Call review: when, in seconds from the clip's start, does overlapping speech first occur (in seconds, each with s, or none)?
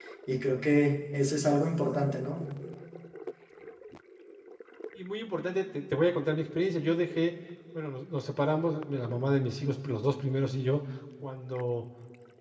none